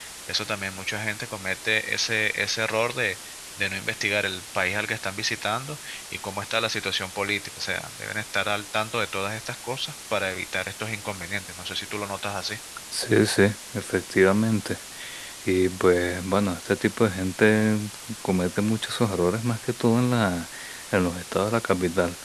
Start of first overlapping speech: none

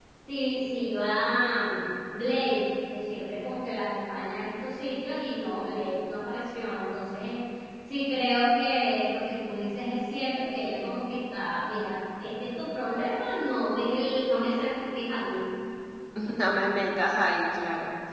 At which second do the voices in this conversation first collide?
none

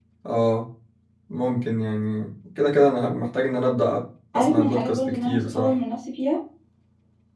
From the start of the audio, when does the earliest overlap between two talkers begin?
4.3 s

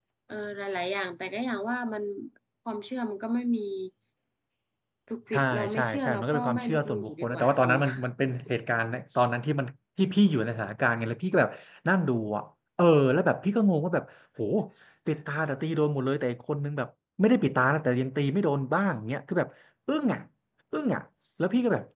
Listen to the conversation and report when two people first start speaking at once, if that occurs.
5.3 s

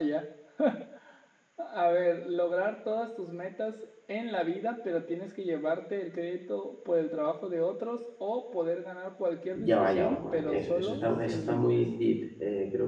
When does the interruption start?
9.5 s

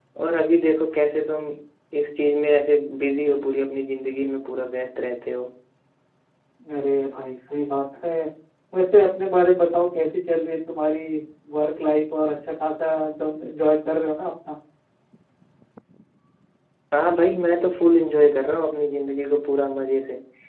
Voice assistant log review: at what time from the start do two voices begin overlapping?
none

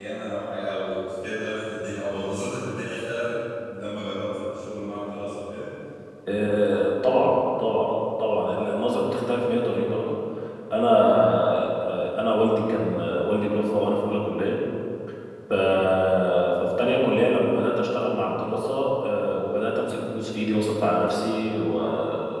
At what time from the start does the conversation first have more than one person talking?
none

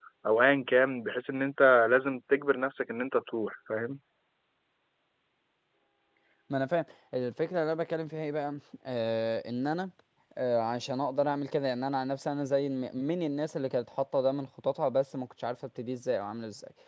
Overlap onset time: none

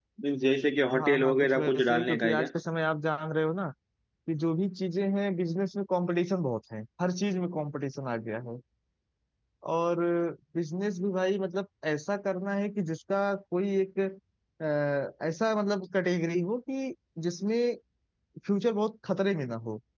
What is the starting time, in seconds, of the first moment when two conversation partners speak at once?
0.9 s

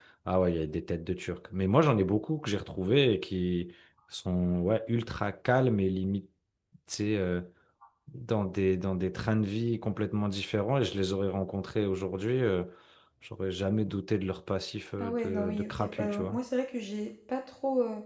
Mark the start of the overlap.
15.0 s

